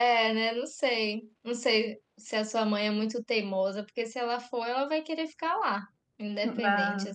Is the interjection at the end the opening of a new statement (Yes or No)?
Yes